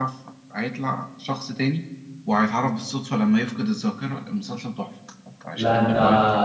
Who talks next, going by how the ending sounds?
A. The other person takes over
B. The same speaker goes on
A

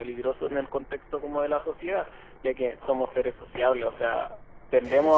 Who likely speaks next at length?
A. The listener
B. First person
B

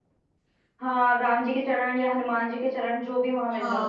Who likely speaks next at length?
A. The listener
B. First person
A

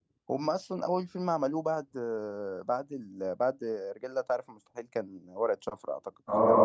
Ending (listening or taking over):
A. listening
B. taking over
B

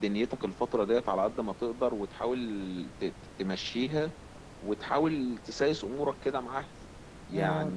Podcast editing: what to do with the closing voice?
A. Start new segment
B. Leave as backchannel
A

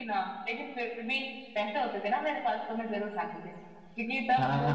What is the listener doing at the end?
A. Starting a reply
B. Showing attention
A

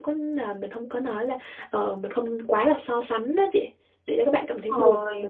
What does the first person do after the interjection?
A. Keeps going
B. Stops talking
B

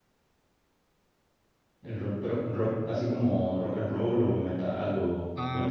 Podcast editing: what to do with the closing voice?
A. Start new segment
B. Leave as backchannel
A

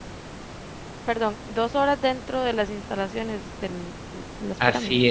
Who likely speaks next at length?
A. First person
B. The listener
B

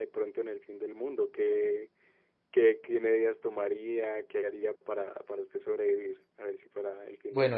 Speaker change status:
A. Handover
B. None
A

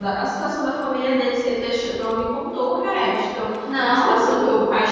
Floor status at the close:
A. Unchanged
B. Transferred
A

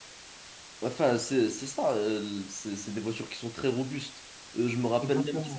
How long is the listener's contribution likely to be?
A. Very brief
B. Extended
A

